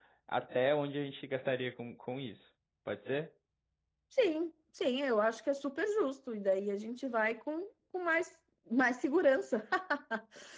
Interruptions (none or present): none